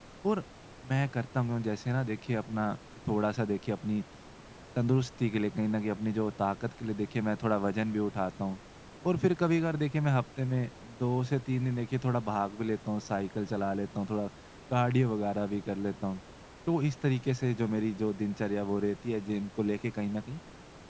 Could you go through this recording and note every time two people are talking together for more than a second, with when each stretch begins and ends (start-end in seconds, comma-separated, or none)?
none